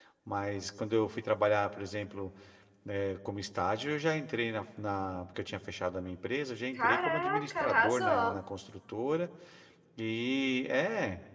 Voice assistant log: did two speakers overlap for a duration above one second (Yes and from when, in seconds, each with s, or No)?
Yes, from 6.8 s